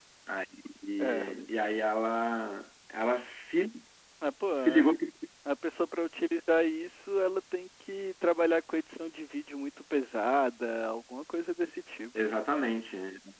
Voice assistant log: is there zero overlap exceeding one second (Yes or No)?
Yes